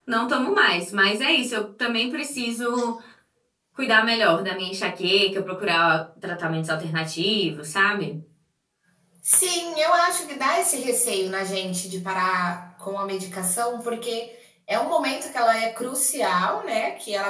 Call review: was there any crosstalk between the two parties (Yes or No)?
No